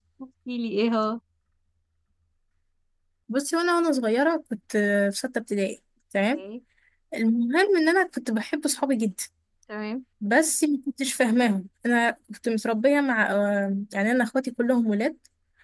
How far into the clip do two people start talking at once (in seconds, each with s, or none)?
none